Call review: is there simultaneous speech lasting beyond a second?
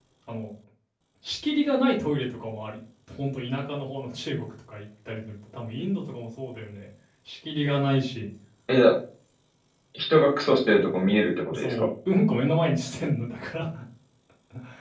No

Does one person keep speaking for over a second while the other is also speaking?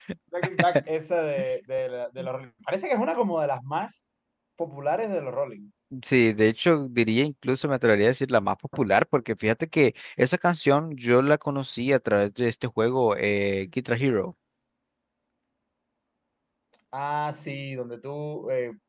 No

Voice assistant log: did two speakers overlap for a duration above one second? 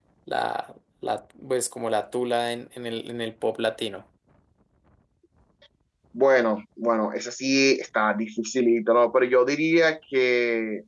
No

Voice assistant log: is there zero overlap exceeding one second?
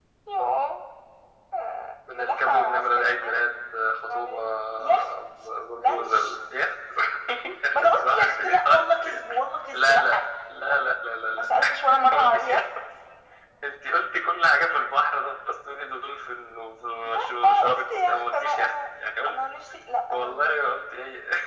No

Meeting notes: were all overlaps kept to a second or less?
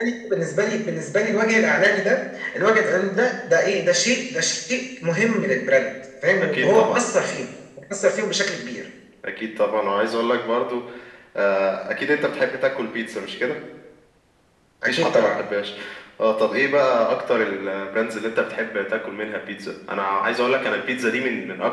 Yes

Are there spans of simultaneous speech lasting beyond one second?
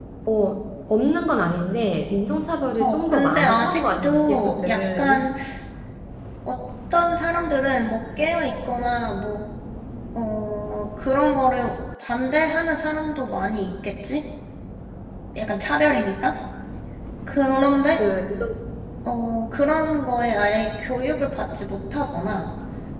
Yes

